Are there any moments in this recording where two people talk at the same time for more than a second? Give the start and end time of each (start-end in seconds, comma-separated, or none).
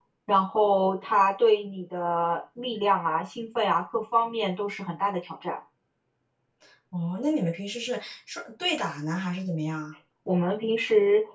none